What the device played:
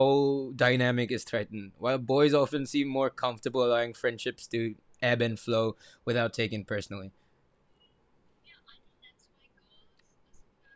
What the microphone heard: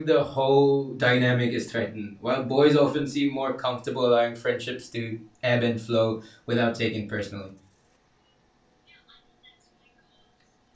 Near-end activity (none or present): none